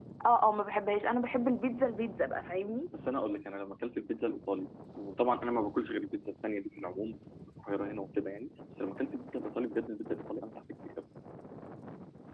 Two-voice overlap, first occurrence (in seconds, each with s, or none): none